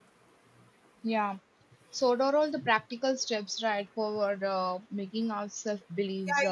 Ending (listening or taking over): taking over